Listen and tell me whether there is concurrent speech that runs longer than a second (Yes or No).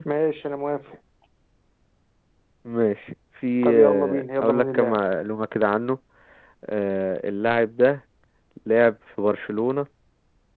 Yes